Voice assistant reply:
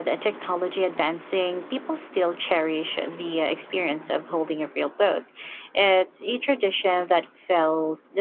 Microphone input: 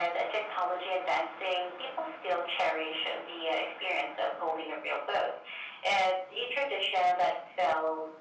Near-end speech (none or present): none